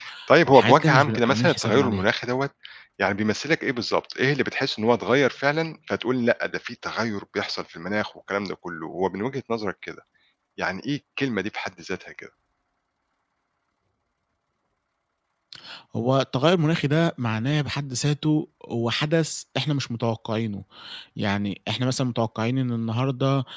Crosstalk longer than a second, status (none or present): present